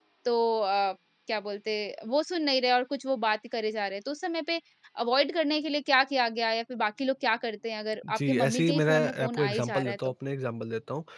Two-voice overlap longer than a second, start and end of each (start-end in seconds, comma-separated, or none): 8.2-10.1